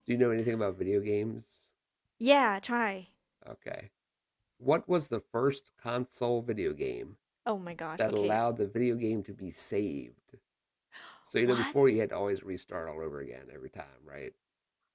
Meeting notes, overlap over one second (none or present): none